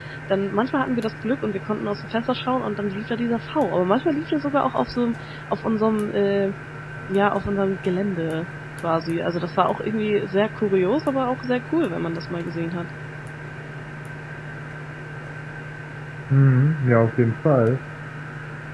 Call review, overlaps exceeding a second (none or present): none